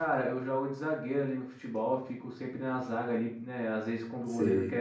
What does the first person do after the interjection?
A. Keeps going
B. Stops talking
A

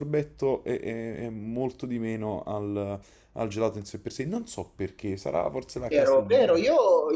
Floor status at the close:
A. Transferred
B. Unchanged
A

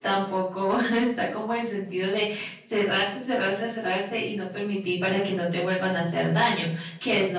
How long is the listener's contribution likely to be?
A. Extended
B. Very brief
B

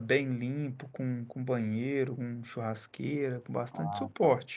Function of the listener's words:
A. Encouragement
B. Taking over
A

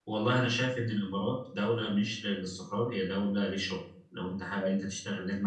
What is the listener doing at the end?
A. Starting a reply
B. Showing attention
B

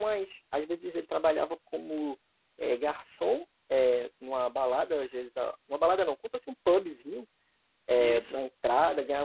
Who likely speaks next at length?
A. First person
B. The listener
A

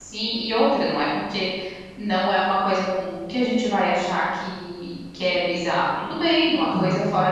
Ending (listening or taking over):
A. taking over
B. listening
B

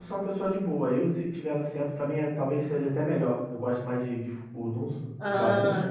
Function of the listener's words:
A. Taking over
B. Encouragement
A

